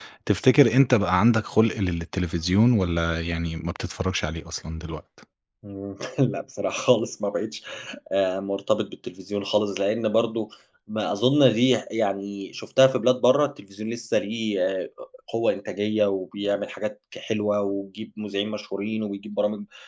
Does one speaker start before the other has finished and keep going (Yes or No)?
No